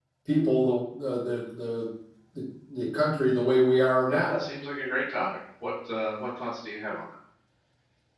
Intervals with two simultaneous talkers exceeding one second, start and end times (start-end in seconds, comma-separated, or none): none